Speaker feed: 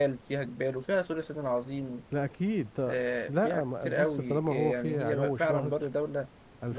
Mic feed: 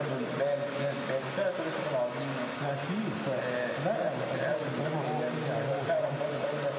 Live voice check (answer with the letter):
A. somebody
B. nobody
B